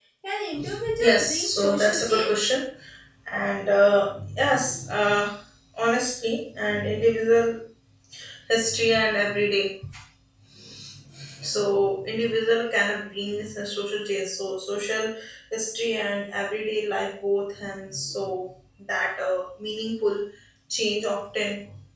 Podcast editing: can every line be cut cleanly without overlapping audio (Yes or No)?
No